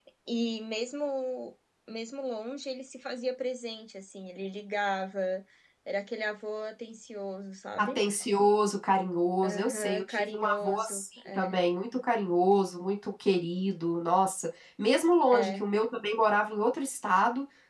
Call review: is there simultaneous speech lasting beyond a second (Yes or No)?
Yes